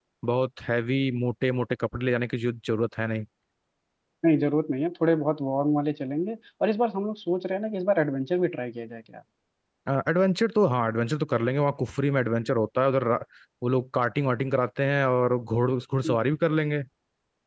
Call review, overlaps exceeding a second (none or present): none